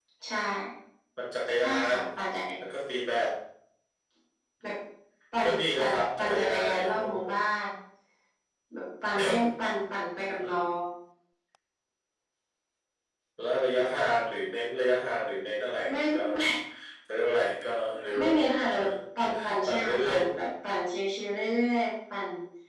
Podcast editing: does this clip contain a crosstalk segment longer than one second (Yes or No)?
Yes